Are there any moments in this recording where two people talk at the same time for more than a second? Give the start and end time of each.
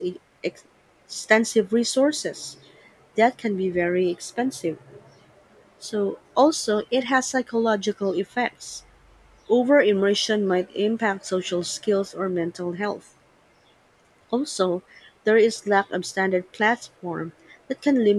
none

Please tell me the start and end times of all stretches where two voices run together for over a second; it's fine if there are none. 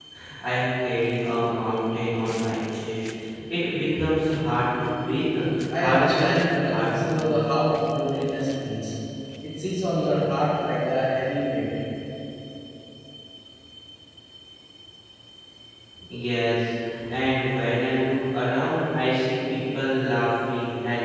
5.8-7.3

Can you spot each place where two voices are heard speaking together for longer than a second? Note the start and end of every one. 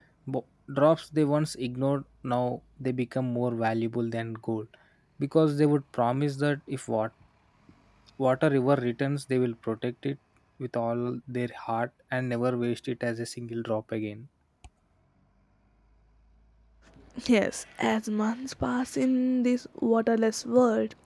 none

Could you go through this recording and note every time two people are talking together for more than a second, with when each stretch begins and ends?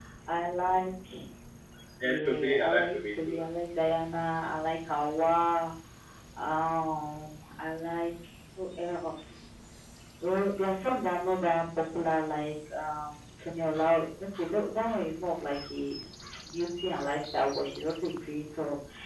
2.0-3.4

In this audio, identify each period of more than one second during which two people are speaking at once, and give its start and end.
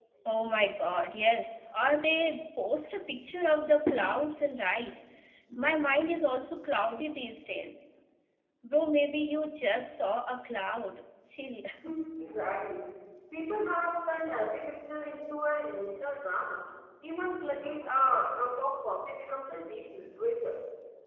none

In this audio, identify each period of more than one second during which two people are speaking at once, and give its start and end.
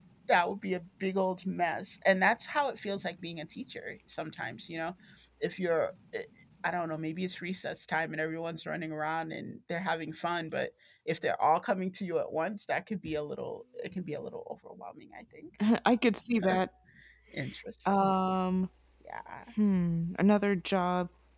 none

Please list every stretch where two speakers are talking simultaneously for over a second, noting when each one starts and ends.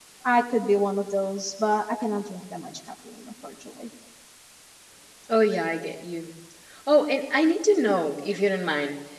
none

